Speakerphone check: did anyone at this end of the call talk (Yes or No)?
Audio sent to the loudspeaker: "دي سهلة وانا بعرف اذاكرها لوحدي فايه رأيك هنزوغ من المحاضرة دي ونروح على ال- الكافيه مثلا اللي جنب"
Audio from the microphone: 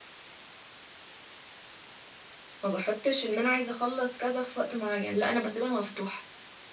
Yes